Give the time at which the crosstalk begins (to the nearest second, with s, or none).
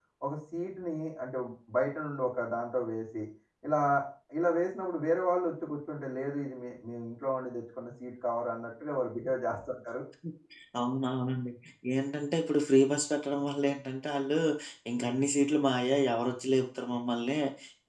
none